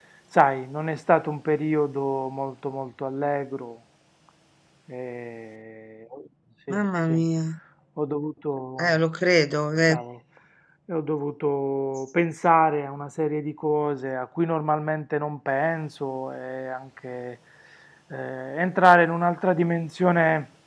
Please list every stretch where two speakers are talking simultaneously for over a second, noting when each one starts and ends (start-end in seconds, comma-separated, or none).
none